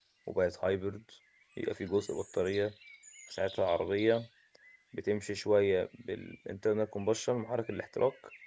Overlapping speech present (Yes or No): No